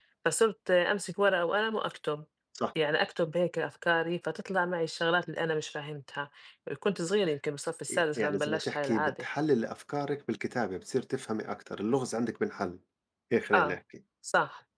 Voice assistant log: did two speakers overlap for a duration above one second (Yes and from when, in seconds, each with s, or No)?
Yes, from 7.9 s